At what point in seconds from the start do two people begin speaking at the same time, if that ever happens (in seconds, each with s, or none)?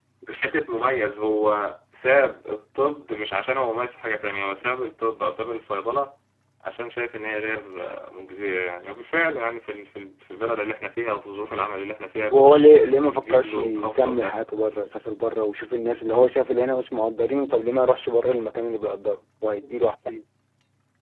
12.2 s